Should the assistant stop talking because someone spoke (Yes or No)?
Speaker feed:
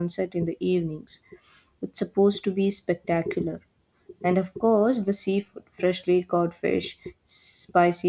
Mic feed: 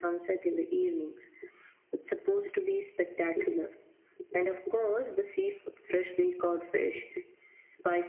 No